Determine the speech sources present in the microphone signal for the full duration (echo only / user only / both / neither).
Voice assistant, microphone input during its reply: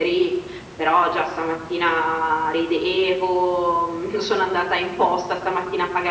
echo only